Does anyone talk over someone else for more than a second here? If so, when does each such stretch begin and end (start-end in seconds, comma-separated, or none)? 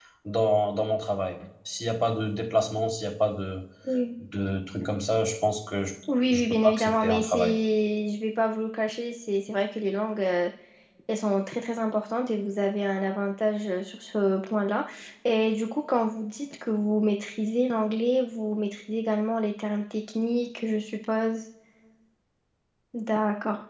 6.3-7.6